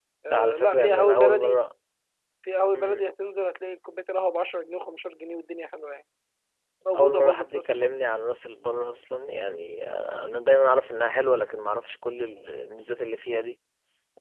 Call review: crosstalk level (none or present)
present